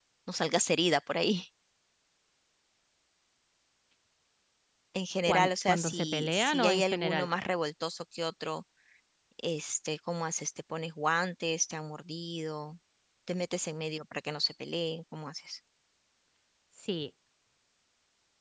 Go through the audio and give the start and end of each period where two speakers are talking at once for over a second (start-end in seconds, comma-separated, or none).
5.3-7.3